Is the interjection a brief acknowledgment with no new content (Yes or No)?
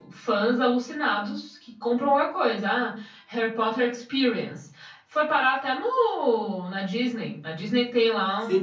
No